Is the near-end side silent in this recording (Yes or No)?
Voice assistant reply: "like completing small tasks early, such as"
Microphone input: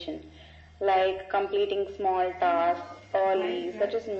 No